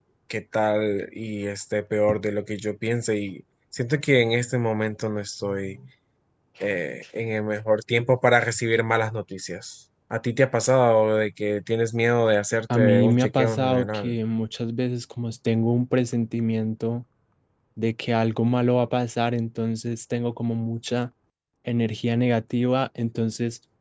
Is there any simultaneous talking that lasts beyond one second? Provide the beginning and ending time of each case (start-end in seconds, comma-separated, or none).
12.8-14.2